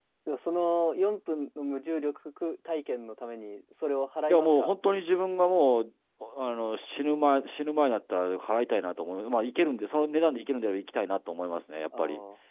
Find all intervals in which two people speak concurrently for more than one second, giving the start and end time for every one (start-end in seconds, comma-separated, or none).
none